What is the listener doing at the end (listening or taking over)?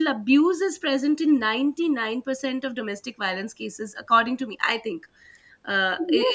taking over